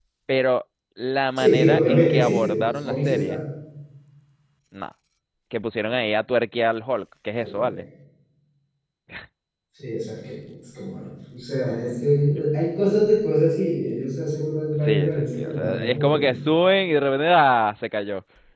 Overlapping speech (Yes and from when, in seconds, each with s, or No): Yes, from 1.4 s